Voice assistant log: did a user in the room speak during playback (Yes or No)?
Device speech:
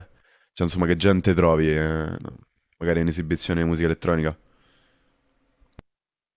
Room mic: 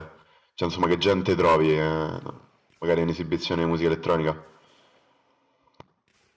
No